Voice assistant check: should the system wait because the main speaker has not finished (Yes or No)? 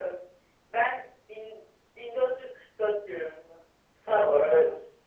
No